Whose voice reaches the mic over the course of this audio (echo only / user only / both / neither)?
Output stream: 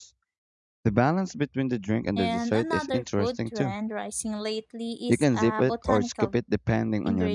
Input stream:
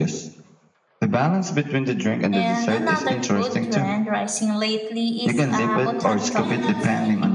both